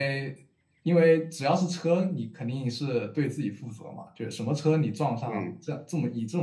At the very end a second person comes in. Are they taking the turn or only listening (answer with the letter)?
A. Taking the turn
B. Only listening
B